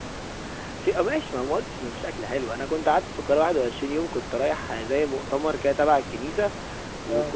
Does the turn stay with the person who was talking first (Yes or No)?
Yes